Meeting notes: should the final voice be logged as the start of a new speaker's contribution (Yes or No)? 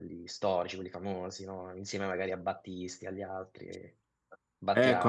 Yes